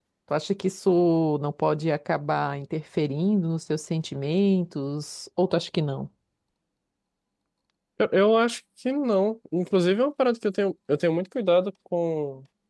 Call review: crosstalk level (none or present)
none